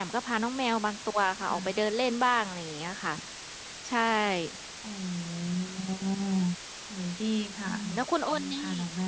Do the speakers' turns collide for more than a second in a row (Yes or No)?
No